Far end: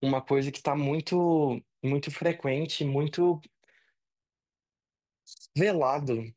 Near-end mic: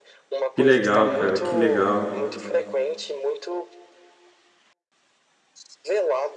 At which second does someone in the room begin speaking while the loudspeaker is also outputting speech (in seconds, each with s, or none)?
0.5 s